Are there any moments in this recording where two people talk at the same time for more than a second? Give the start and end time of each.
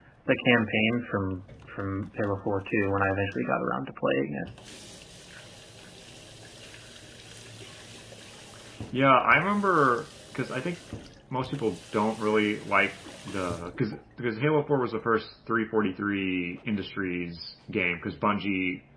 none

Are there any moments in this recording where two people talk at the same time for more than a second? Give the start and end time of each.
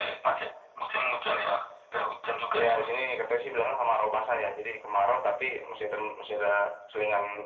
none

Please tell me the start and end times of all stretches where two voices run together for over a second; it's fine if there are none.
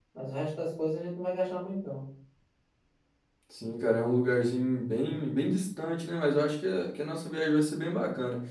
none

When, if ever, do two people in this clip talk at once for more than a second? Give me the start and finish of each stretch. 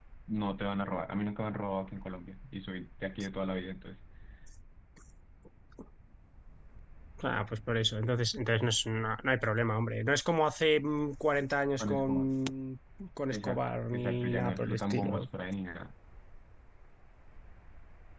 13.3-15.2

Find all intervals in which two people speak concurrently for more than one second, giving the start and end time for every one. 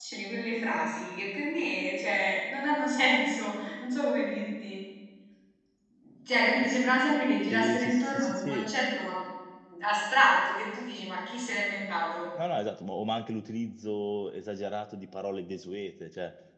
7.5-8.7

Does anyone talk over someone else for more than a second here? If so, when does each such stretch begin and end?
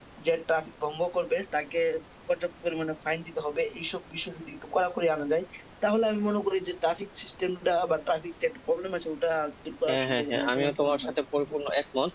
9.9-11.1

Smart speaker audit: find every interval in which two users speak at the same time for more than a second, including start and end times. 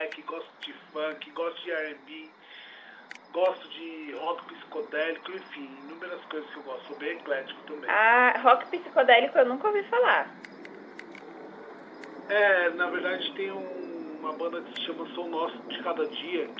none

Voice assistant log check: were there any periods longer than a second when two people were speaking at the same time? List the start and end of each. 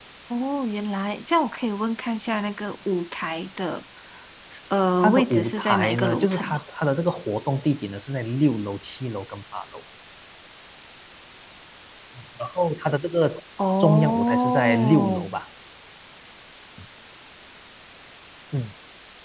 5.0-6.6, 13.8-15.2

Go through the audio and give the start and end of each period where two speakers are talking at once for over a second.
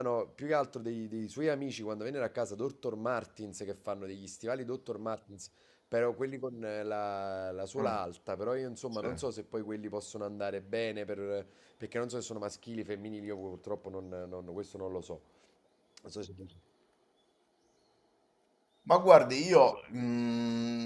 none

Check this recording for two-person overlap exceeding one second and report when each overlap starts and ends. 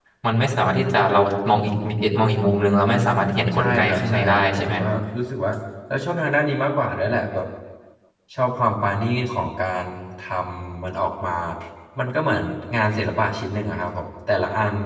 3.5-4.8

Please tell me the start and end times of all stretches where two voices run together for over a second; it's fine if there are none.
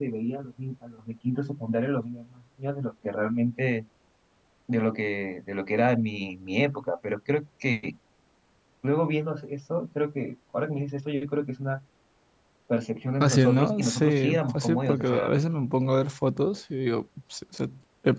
13.2-15.3

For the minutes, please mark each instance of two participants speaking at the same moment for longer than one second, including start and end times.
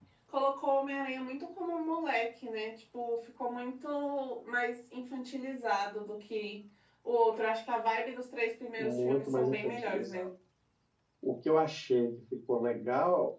8.8-10.3

